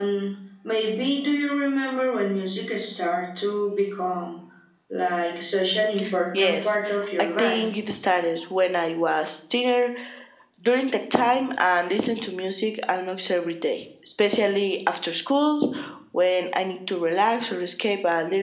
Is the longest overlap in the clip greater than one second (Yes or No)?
No